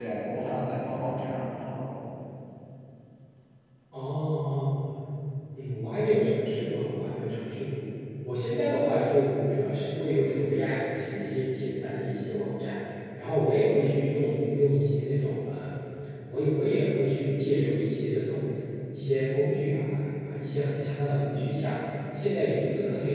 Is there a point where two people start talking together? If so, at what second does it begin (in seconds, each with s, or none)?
none